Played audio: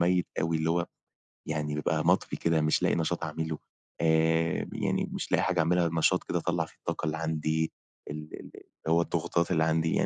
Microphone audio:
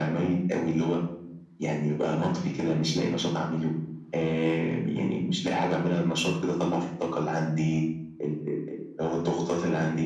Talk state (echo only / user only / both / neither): echo only